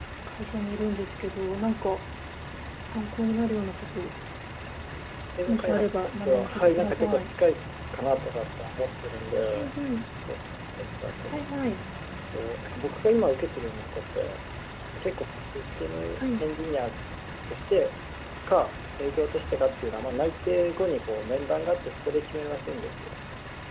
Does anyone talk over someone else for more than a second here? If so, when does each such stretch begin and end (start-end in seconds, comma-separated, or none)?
5.5-7.3